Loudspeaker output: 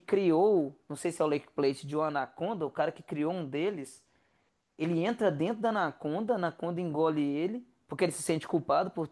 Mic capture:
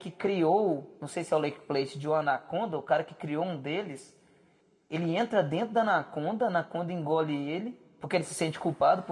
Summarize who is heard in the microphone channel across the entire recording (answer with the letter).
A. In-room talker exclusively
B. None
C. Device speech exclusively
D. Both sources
C